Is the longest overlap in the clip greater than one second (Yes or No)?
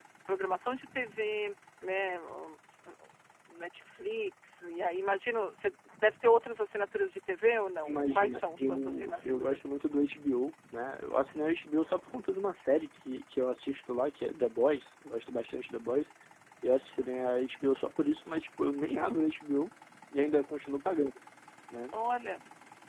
Yes